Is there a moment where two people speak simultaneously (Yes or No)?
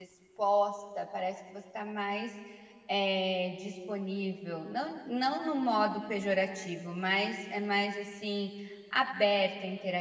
No